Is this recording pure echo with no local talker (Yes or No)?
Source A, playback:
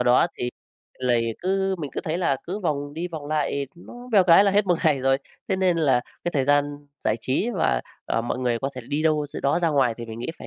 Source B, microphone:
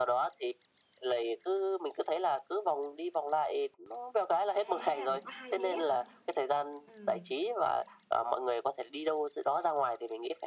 No